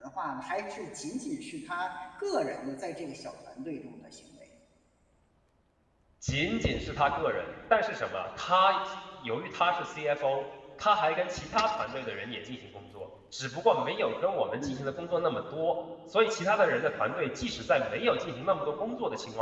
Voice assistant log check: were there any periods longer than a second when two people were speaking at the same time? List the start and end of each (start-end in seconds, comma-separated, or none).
none